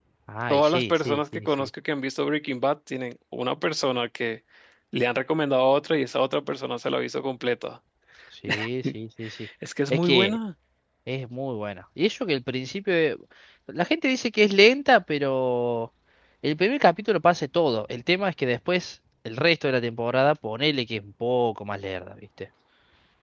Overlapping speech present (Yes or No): Yes